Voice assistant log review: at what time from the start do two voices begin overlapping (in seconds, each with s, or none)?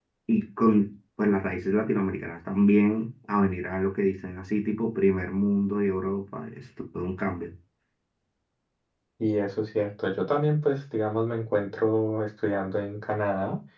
none